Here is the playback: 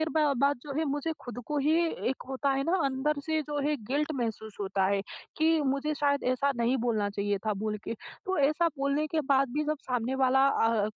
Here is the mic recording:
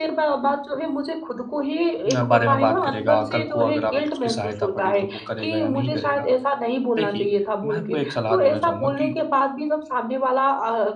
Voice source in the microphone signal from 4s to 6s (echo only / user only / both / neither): both